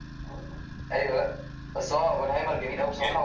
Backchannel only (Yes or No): Yes